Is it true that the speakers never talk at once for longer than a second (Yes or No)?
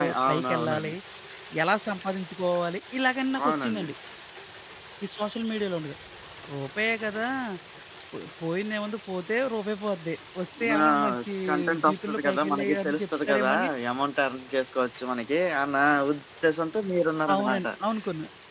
No